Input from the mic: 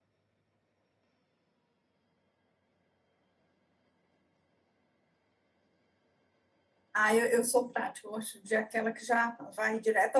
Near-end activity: present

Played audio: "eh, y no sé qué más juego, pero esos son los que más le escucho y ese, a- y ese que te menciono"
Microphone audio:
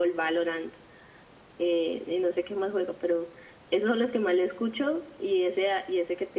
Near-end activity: none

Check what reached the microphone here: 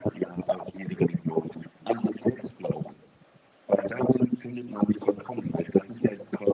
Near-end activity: none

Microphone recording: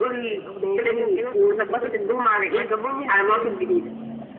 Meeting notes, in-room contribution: none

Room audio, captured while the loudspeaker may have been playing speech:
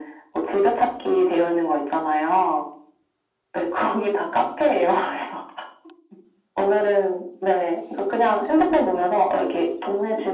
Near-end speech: none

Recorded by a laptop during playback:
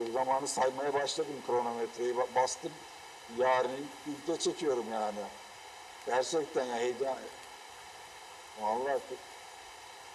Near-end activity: none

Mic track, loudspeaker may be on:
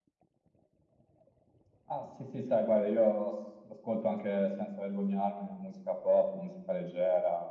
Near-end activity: none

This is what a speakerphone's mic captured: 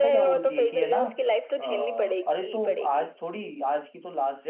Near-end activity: present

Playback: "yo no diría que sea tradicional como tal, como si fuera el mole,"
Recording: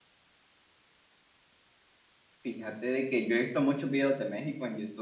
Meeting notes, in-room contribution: present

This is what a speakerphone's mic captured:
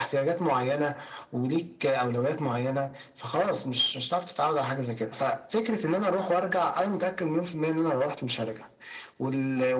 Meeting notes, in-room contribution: none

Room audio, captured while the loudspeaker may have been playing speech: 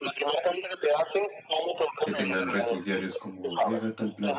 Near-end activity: present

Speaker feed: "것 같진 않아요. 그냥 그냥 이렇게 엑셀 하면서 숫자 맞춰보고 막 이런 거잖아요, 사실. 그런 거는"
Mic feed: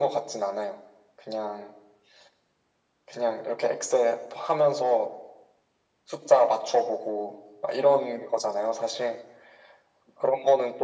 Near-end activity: none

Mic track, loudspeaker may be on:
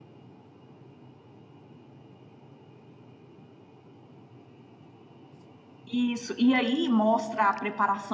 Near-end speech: present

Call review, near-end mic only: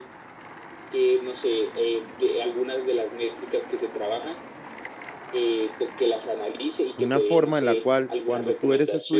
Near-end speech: present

